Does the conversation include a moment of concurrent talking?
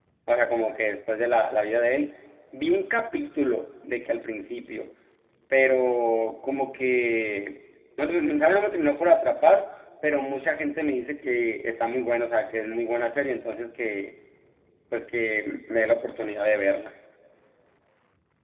No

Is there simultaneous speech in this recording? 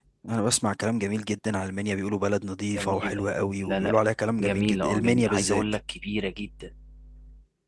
Yes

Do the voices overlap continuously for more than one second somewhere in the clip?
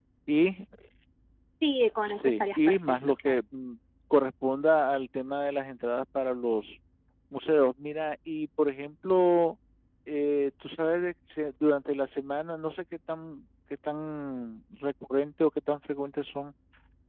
Yes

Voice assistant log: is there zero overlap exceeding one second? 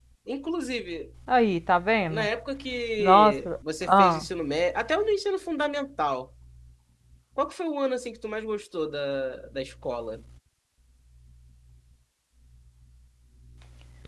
No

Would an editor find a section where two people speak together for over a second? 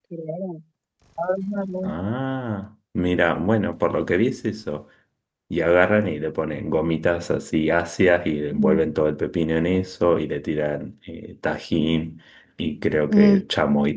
No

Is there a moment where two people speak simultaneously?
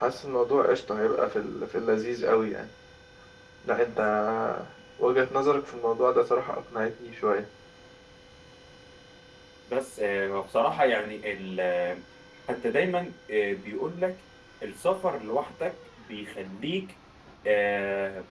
No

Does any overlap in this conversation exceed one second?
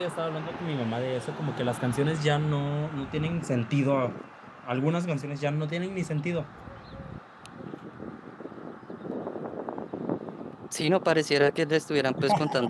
No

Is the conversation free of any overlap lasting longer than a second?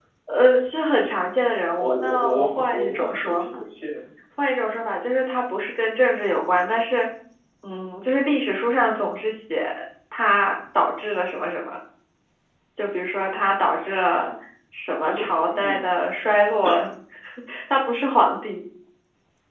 No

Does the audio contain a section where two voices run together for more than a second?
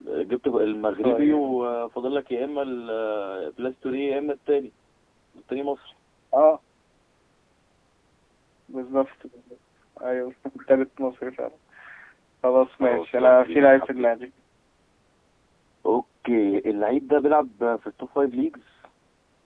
Yes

